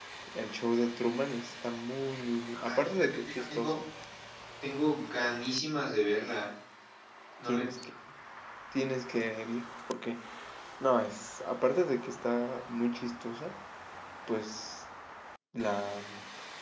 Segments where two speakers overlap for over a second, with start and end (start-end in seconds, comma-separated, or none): 2.5-3.8